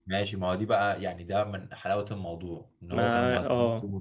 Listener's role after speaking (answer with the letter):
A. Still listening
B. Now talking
A